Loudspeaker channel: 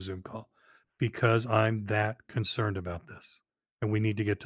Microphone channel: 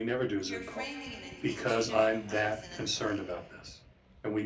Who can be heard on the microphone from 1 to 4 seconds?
both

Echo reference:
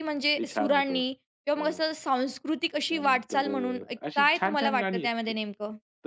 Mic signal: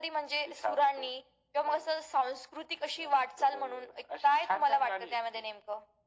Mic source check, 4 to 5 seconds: echo only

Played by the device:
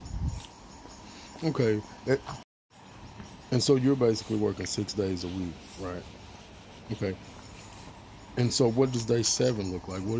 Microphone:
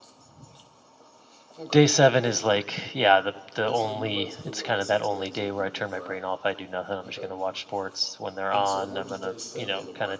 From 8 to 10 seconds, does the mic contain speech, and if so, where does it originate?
both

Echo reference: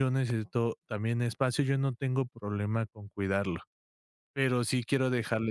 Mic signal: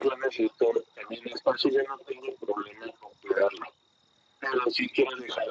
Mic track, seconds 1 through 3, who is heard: echo only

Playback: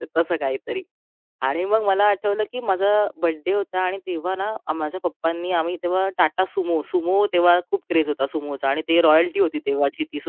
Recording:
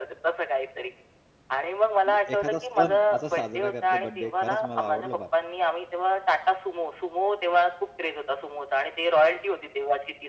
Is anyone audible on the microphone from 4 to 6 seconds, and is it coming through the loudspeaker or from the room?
both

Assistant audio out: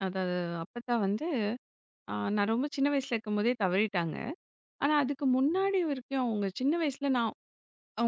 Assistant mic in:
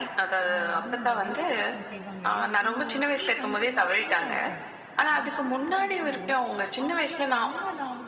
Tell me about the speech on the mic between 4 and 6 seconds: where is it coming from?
both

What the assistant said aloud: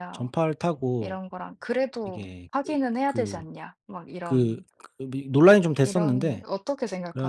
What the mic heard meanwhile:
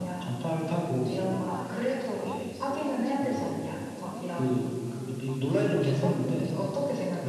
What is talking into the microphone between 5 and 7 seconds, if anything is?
both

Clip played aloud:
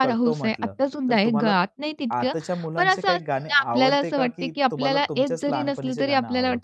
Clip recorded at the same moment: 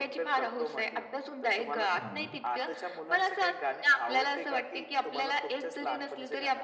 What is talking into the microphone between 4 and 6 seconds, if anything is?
echo only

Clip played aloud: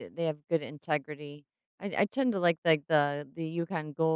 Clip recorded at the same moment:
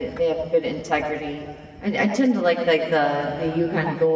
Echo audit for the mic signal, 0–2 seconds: echo only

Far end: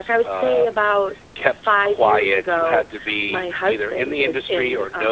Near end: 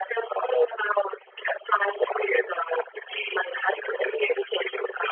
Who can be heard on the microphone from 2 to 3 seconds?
echo only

